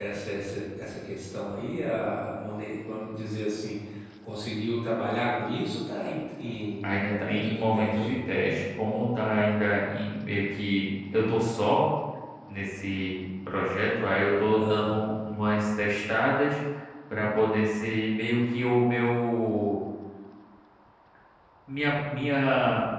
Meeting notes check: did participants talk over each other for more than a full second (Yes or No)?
Yes